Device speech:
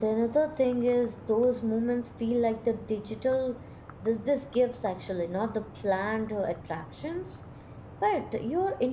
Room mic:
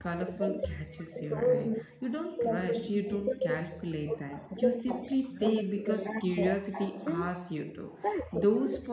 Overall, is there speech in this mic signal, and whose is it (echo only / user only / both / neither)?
both